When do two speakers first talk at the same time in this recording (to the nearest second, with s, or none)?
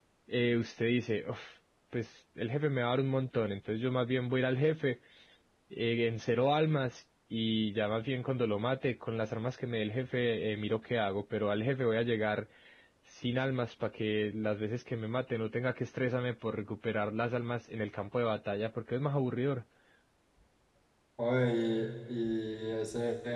none